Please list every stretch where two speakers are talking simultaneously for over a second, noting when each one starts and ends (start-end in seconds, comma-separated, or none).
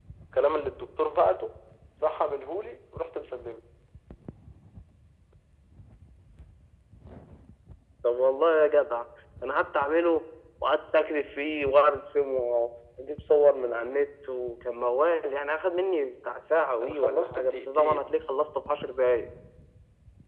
16.8-18.1